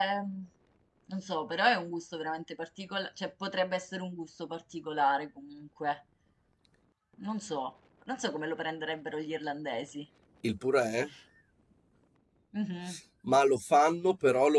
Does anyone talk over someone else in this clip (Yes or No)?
No